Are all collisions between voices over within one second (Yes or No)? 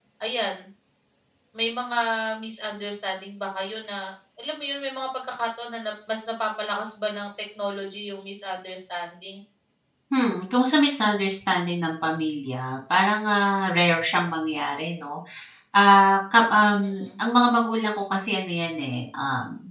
Yes